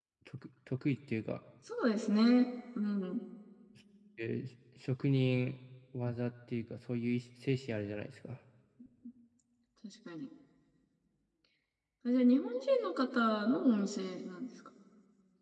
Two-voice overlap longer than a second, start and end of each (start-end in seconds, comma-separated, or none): none